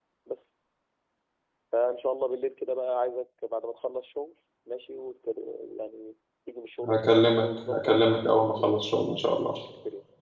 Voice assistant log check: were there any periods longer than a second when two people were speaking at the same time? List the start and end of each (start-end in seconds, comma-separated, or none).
6.9-9.5